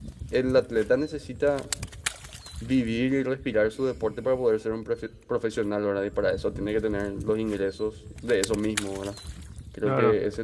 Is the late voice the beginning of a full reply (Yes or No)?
No